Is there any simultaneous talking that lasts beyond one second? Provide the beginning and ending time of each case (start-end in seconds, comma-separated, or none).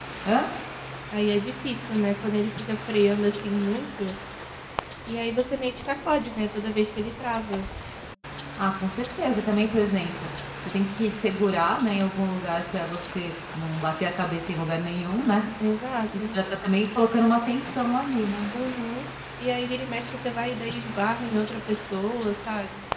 none